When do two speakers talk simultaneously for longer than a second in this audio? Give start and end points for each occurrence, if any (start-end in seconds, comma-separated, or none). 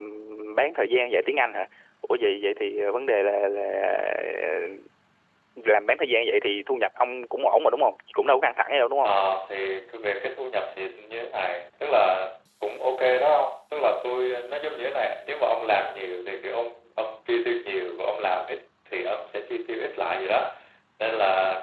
none